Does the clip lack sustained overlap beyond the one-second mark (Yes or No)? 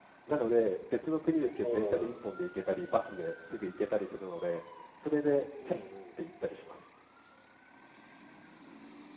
Yes